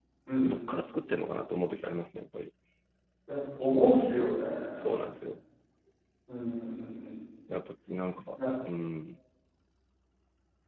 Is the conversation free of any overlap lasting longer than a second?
Yes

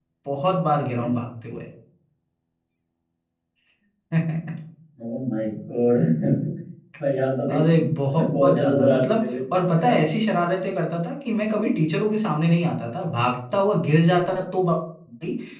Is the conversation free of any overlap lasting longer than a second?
No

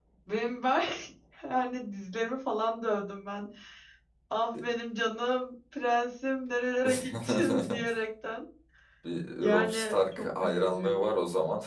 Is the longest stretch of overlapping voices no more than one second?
No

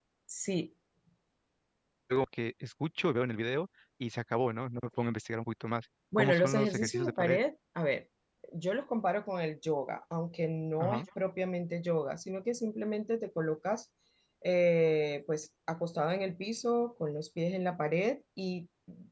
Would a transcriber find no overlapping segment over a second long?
No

